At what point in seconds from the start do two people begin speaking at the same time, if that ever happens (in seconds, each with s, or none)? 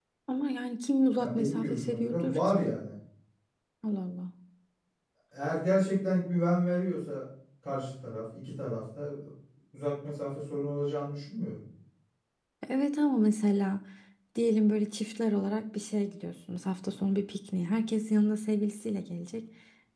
1.2 s